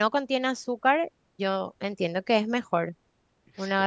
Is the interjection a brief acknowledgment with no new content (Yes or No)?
Yes